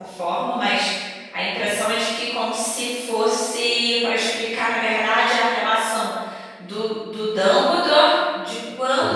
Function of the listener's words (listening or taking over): listening